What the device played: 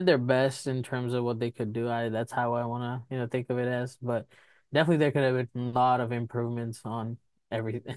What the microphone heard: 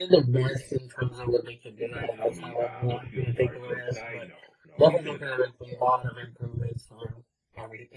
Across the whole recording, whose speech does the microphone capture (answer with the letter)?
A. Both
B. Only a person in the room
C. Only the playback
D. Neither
A